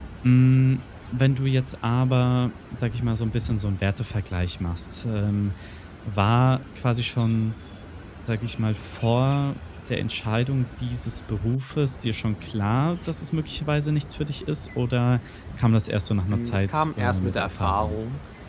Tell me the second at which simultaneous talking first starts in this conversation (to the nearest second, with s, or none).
16 s